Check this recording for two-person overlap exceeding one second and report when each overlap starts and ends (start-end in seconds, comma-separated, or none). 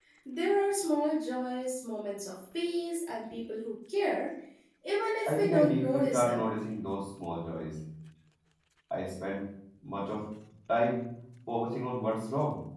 5.3-6.5